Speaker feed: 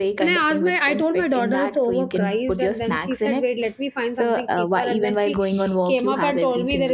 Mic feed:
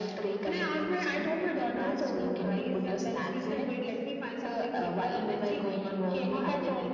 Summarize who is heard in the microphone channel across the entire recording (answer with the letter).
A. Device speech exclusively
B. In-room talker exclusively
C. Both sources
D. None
A